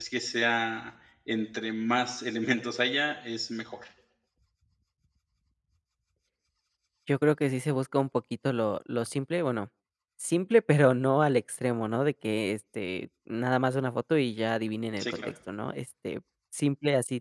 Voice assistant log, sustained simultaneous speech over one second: none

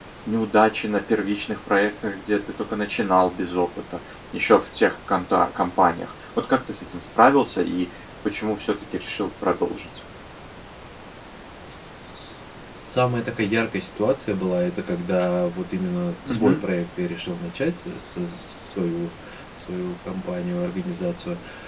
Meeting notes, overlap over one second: none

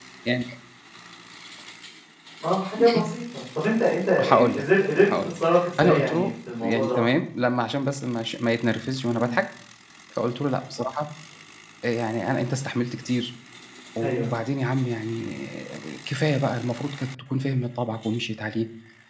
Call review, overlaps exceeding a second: present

